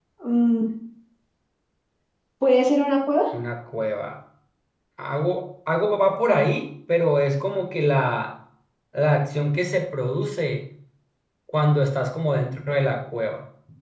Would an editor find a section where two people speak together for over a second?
No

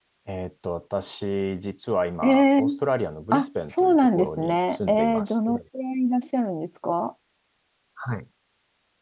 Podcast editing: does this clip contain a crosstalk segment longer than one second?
Yes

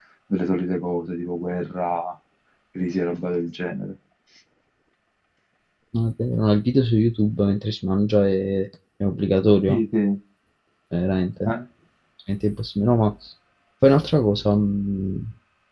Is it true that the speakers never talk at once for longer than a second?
Yes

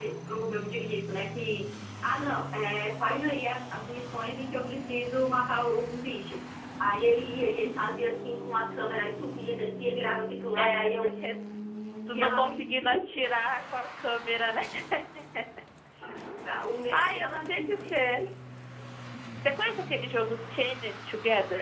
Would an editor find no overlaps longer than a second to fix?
No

